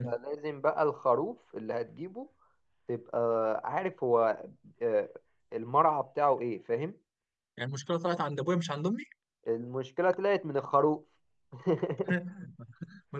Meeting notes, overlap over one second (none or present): none